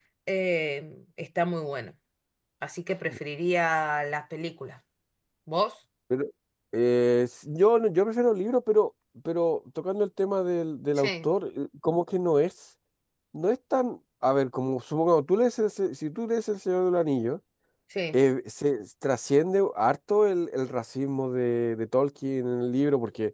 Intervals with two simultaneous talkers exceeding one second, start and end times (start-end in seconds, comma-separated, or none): none